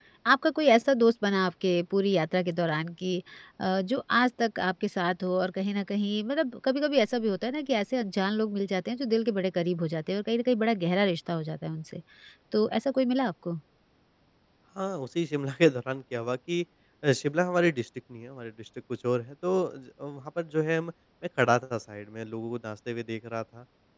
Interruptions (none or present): none